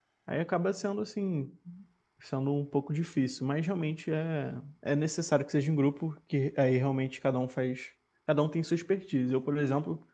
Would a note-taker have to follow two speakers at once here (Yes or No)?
No